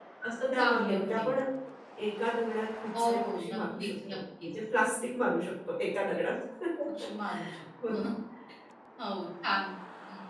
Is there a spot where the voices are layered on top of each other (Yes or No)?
Yes